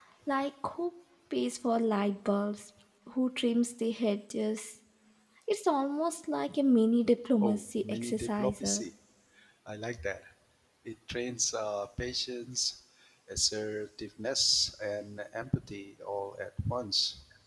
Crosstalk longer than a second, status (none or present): present